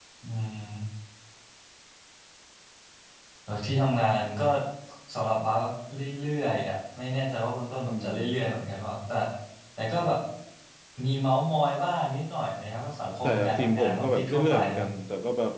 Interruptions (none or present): present